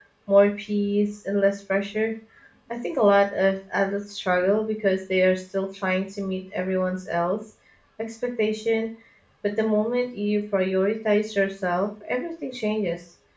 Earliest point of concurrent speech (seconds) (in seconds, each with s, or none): none